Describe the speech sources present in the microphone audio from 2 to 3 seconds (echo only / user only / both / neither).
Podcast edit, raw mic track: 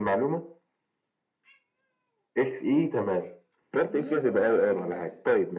echo only